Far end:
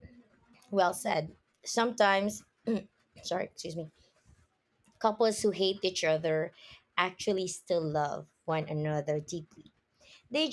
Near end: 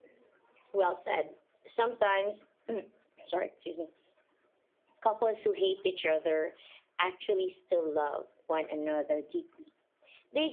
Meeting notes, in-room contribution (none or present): none